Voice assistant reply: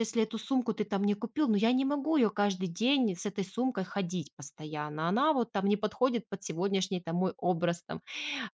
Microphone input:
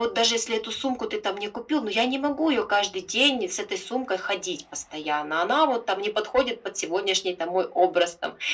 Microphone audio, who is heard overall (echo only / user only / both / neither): echo only